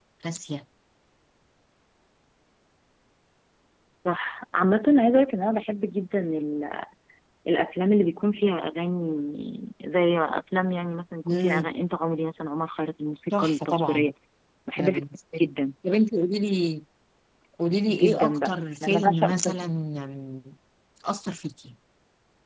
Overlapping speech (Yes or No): Yes